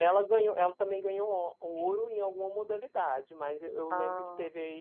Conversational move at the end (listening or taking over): listening